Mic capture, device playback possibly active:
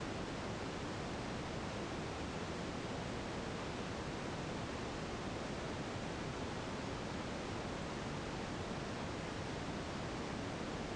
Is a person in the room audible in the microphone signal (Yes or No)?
No